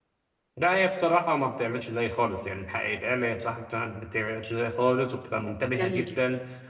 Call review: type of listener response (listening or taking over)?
listening